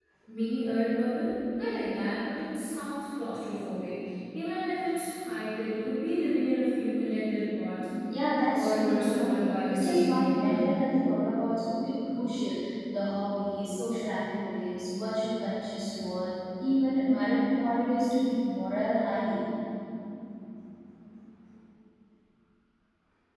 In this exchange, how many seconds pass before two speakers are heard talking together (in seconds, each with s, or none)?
8.5 s